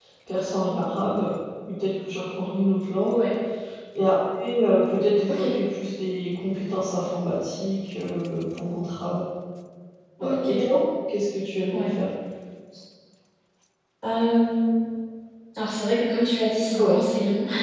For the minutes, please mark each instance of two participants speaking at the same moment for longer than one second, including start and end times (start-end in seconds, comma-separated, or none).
none